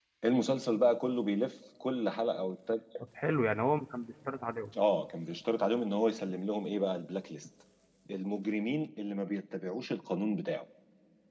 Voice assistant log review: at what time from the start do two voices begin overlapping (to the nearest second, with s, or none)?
none